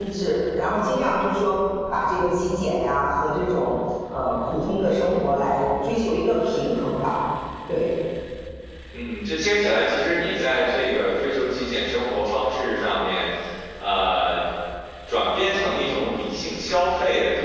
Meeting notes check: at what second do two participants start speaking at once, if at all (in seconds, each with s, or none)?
none